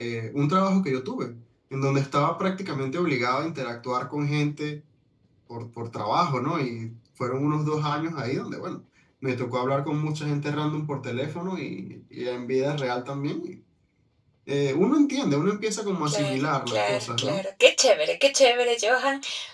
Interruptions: present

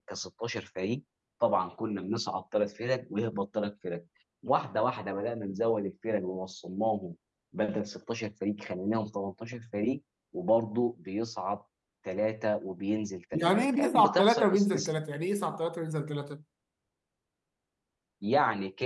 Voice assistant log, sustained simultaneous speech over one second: present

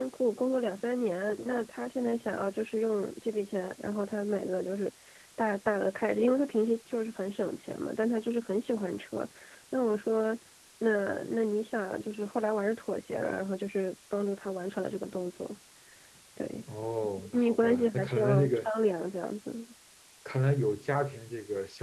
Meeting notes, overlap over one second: present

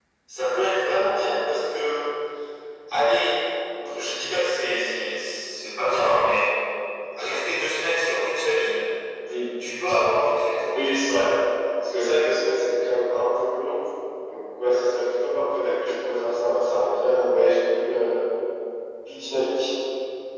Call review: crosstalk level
none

